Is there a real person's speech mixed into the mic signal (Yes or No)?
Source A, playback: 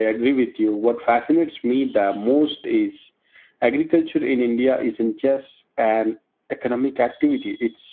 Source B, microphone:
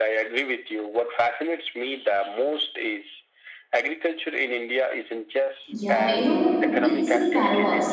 Yes